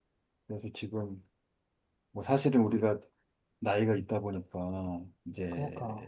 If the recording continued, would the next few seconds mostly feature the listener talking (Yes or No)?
No